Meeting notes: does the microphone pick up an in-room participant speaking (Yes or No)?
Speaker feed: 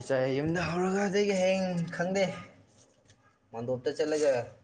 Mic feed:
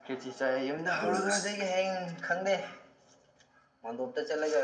Yes